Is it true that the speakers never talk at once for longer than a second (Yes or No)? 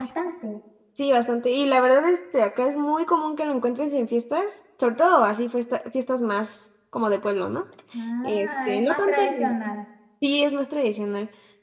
No